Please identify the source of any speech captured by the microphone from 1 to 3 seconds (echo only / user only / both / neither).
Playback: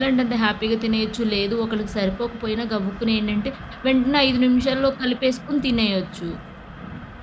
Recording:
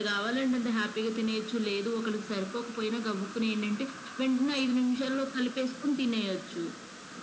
echo only